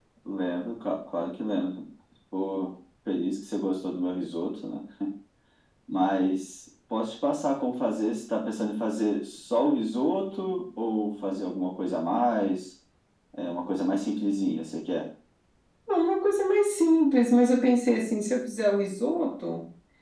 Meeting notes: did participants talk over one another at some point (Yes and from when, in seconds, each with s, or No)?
No